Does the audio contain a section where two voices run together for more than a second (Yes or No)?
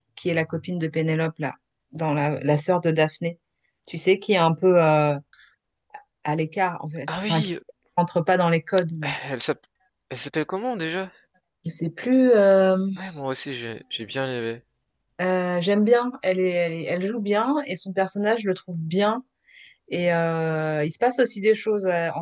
No